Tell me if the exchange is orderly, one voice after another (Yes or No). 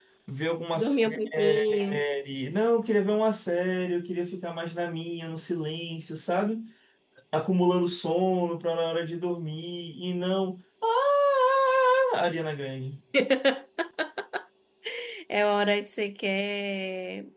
No